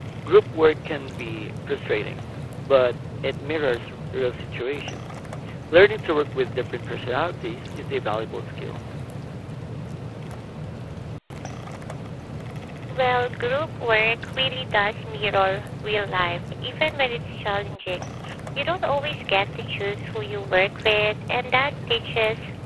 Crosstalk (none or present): none